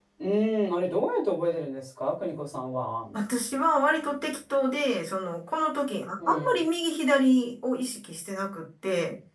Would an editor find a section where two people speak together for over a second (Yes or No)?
No